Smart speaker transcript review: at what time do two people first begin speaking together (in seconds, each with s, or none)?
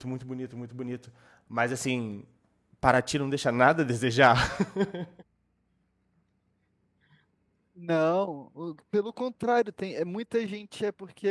none